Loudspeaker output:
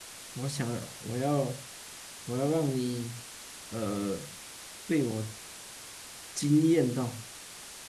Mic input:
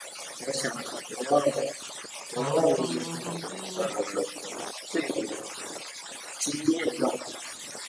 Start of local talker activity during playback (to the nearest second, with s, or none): 2 s